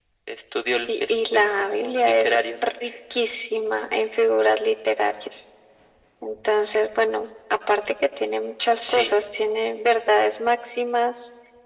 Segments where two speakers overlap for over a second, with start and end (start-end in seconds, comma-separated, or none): 0.9-2.7